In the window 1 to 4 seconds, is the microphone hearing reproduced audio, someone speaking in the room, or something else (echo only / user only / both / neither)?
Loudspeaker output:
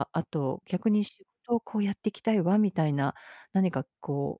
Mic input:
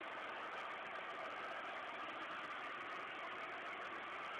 neither